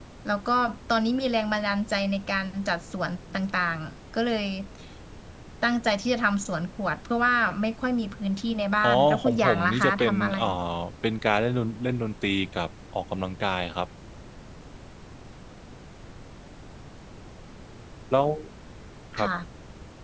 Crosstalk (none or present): present